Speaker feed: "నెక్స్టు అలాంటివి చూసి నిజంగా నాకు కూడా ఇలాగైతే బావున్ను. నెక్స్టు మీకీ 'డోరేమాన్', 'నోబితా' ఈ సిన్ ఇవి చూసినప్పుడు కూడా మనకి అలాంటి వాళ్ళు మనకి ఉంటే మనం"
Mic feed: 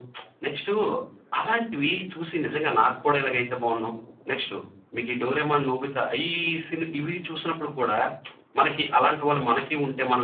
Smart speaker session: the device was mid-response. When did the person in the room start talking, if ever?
none

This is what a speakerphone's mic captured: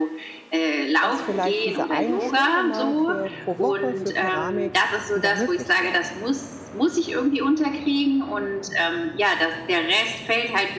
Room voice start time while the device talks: 1.0 s

